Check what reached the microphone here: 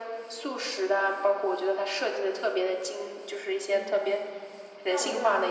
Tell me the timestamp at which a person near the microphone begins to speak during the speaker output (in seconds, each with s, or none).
3.6 s